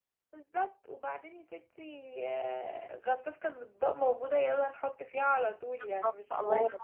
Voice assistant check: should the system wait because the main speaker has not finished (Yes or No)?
No